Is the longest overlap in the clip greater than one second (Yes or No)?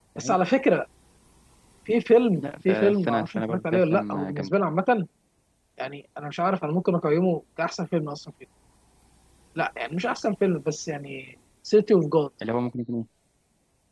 Yes